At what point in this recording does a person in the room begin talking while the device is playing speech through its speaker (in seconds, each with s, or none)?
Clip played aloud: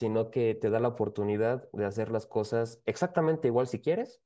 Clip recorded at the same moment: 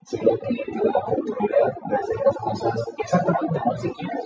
none